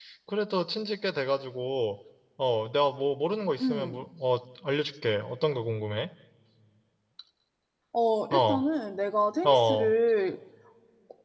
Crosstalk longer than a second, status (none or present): none